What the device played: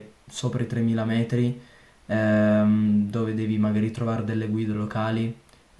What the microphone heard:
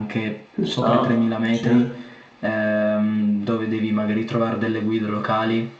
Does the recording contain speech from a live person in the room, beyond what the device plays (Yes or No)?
Yes